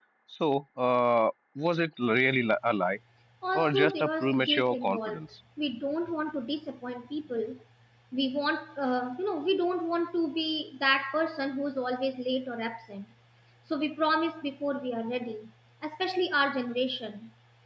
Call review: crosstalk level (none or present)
present